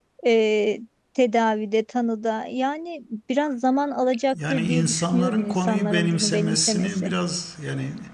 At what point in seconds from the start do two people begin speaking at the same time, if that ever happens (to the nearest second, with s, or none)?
4 s